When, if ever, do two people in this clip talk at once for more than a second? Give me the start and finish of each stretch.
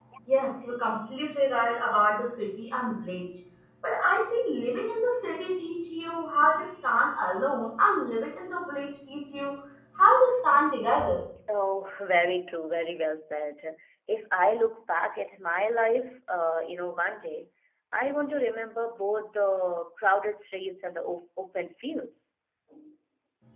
none

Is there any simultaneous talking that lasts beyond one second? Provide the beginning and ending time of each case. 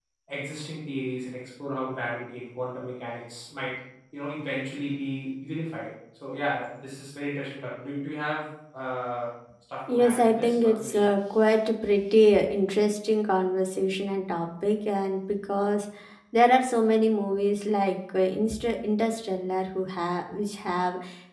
9.9-11.1

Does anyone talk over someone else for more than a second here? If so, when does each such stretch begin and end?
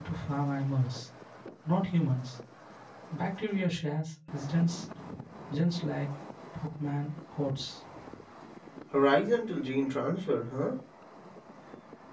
none

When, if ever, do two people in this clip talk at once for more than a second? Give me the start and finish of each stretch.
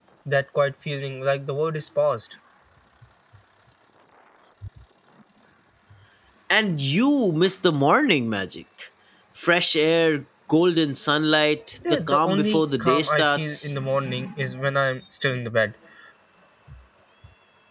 11.9-13.7

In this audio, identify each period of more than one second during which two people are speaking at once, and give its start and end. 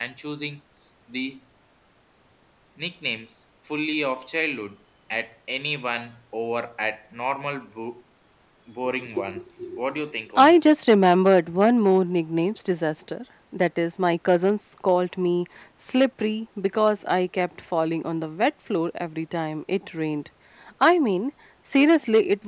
none

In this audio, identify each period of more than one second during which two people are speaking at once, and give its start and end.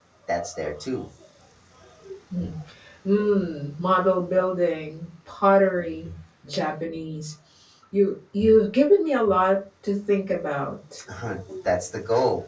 none

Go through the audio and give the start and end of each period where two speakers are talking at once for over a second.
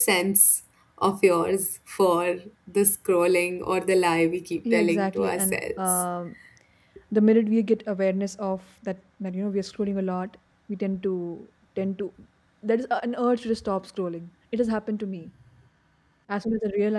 4.7-6.0

